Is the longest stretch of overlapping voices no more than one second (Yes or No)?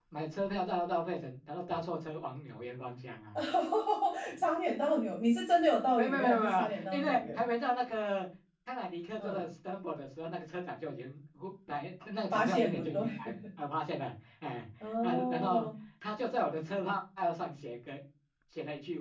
No